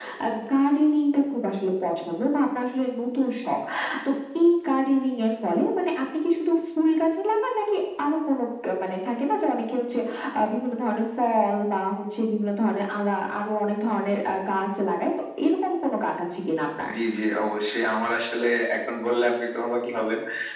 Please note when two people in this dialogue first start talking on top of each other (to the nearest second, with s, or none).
none